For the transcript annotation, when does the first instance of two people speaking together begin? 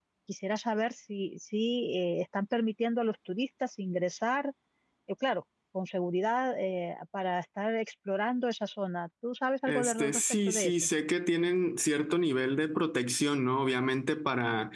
9.7 s

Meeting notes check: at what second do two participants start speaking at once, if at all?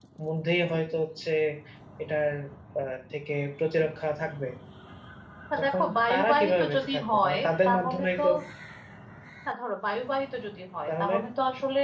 5.6 s

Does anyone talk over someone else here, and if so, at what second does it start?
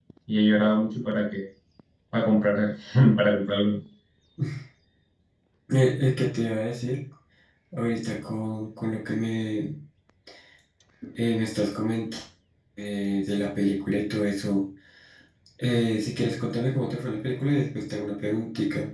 none

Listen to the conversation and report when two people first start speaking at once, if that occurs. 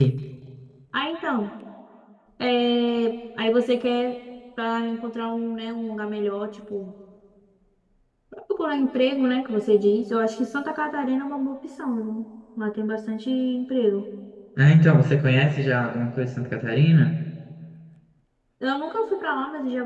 none

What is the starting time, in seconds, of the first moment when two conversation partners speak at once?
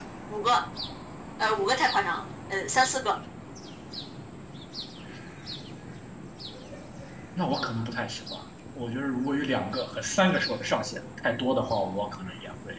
none

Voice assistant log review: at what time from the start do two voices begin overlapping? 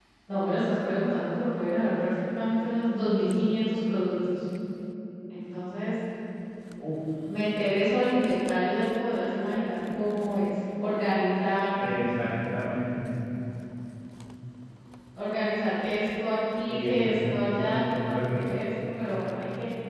16.7 s

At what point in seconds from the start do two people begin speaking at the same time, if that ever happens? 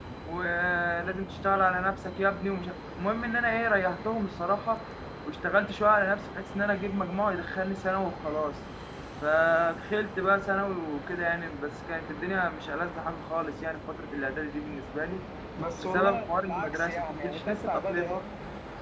15.8 s

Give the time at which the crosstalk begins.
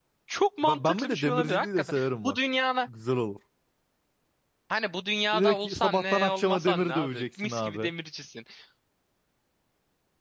0.6 s

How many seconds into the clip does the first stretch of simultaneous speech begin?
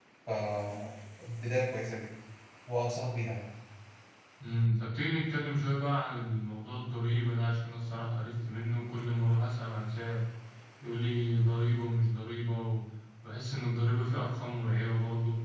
none

